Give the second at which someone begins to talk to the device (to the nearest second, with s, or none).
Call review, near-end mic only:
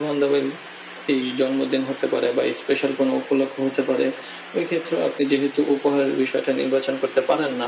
none